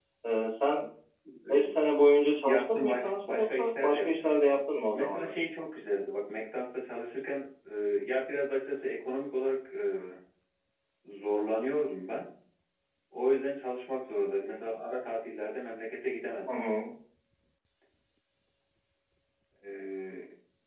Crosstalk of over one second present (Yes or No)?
Yes